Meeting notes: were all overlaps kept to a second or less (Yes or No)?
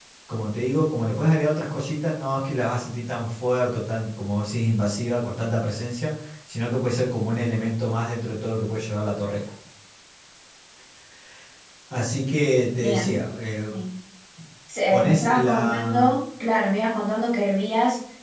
No